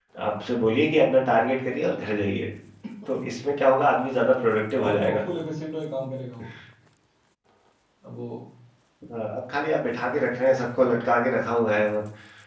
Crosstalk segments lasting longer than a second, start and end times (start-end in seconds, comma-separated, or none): none